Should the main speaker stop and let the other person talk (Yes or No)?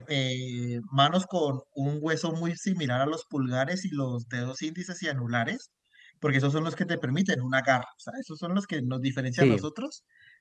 No